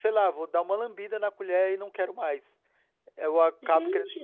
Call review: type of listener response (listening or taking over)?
listening